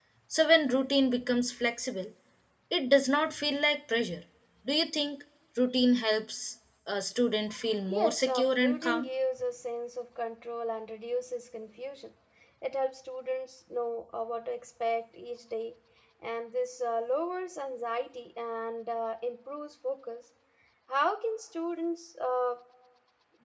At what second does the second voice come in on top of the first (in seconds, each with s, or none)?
7.9 s